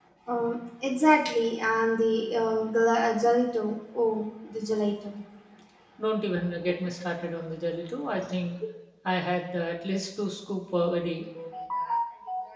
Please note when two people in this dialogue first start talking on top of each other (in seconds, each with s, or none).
none